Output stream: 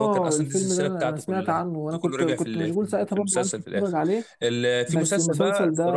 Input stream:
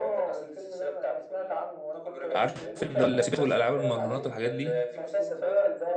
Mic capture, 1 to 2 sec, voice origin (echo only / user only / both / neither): echo only